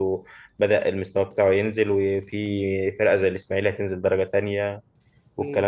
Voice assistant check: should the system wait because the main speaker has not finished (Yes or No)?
No